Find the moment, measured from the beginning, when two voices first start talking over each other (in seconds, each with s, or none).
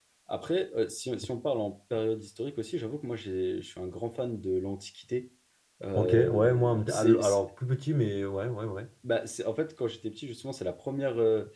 6.0 s